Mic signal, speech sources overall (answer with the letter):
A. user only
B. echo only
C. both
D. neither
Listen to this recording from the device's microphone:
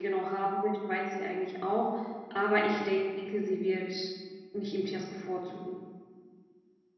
A